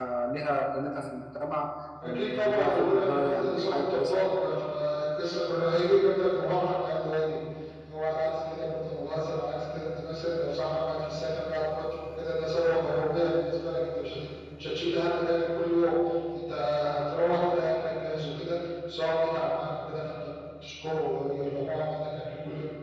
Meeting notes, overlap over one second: present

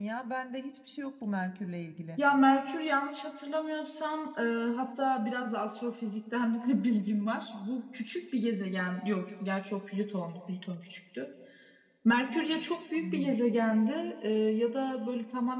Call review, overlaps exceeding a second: none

